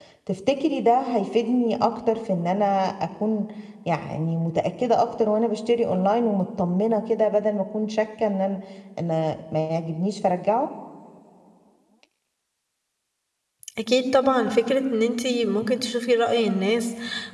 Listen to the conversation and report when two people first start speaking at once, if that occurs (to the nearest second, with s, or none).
none